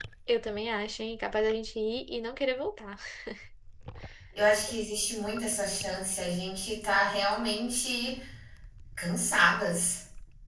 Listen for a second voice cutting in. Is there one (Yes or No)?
No